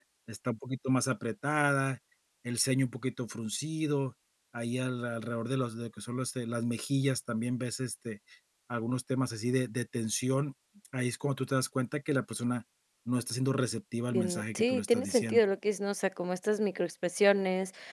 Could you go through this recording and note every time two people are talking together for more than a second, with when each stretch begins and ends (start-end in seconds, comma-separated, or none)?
14.1-15.4